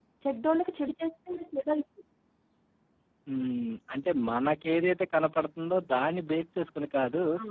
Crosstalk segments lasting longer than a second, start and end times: none

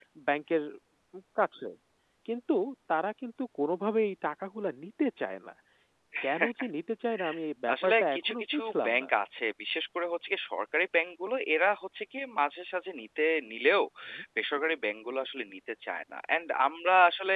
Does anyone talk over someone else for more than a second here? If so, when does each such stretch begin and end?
7.7-9.1

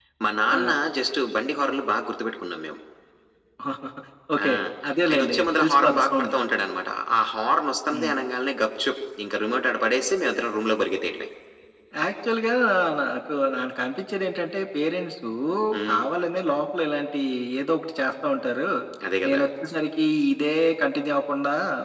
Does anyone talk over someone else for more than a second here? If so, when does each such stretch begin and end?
5.1-6.3

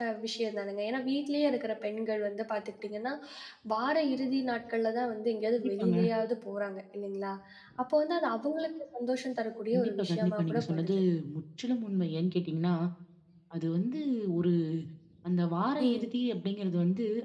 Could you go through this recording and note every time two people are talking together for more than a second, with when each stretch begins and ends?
9.7-10.9

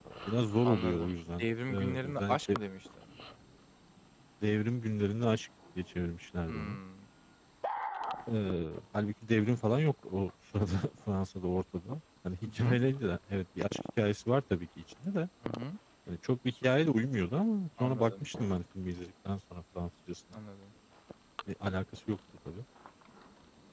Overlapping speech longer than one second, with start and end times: 0.6-2.6

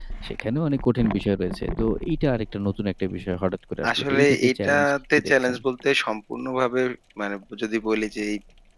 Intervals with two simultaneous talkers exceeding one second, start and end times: 4.1-5.6

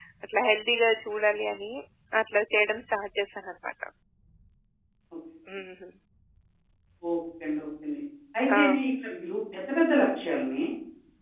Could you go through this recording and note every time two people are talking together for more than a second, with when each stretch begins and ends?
none

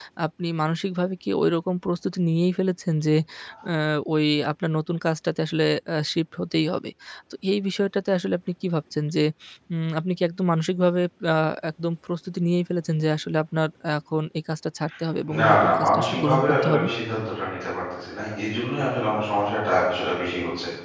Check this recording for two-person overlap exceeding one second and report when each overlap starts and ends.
15.4-16.9

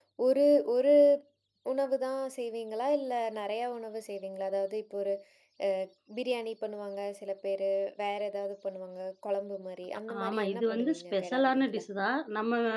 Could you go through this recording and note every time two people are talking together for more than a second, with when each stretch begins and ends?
10.2-11.8

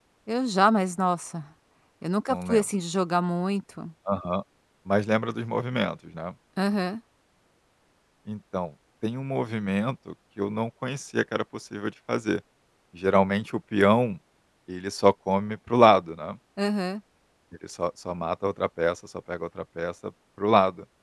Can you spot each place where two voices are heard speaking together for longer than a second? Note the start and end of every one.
none

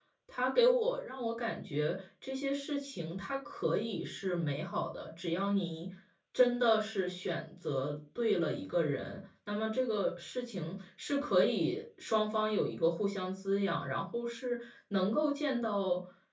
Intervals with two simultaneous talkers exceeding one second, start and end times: none

